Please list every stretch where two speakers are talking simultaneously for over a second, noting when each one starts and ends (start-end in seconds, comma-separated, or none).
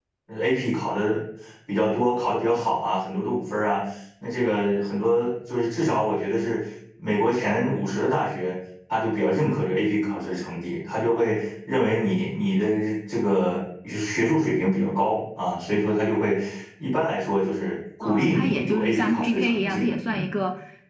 18.0-20.3